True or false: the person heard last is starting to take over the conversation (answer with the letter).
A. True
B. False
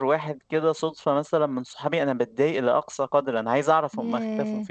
B